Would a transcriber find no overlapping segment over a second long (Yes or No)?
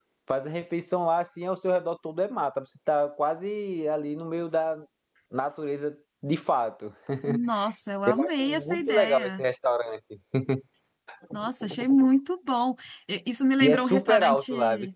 No